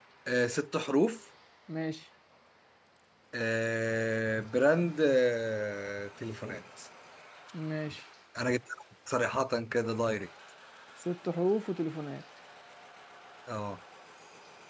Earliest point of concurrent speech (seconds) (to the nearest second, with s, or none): none